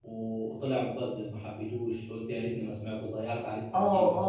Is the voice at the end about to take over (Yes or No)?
Yes